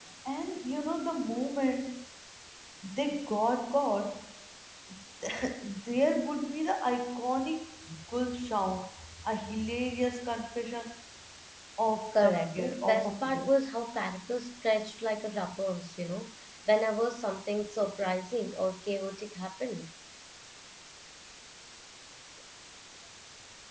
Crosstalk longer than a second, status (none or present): present